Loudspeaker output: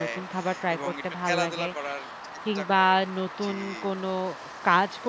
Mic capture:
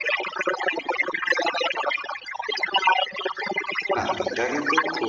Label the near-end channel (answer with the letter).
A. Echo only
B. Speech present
B